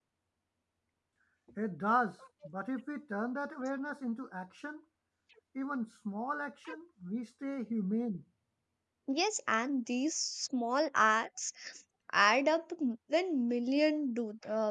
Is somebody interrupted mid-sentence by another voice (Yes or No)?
No